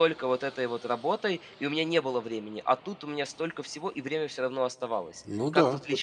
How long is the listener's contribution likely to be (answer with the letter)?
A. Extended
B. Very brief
A